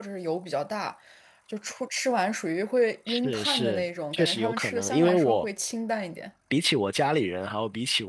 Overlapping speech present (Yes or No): Yes